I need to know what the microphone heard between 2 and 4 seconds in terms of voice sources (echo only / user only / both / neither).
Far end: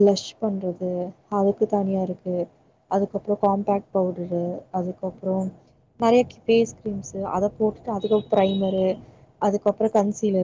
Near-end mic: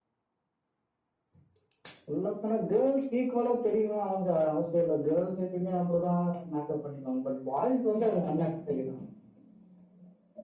user only